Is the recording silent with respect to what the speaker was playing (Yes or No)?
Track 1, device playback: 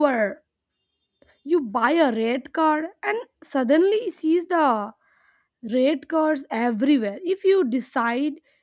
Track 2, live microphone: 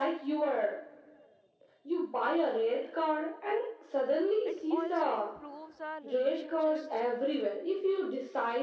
No